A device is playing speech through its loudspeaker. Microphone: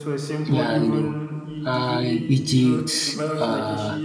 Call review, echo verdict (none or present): present